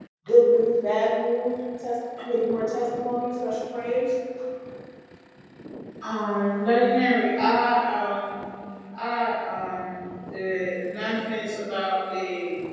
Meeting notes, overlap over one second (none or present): none